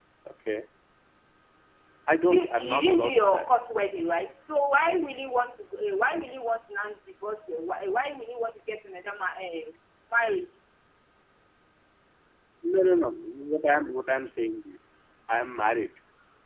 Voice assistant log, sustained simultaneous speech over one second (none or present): present